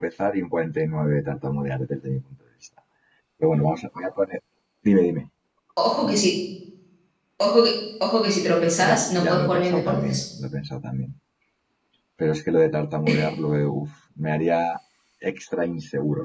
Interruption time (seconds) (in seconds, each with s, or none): 8.8 s